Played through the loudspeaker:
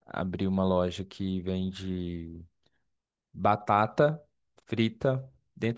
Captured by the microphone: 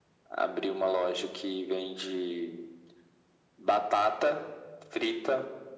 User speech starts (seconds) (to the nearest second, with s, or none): none